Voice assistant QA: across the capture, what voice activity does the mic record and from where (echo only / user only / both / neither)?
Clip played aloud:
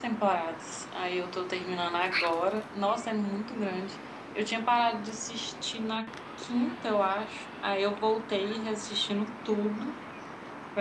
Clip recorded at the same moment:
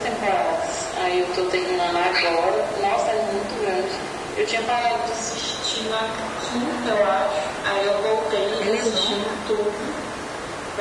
both